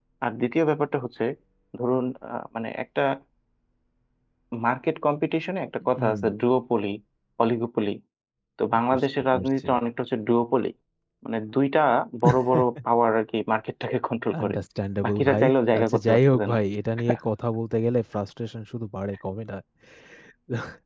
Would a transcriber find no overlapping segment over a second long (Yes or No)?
No